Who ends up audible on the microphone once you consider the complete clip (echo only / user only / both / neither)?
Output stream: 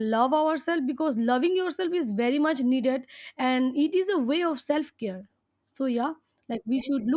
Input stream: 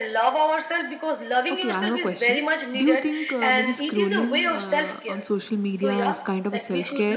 both